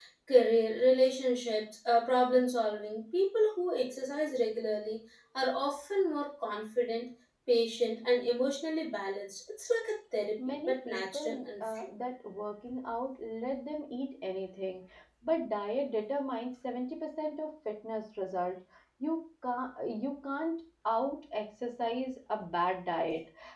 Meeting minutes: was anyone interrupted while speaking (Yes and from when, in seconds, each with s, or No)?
Yes, from 10.4 s